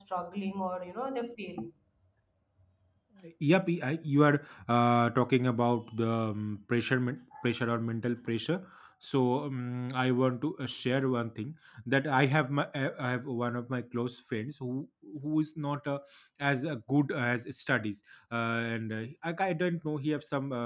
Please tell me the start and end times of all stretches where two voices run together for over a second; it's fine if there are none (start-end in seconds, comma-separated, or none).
none